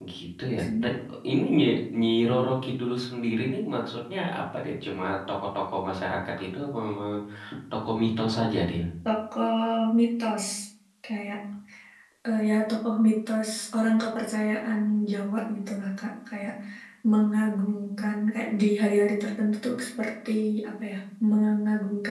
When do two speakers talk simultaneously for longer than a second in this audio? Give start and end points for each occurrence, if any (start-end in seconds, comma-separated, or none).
none